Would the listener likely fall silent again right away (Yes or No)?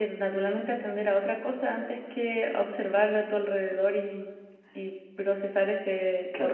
No